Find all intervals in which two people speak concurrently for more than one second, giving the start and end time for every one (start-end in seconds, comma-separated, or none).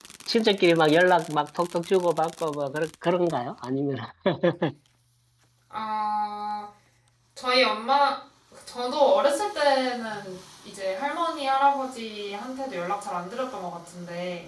none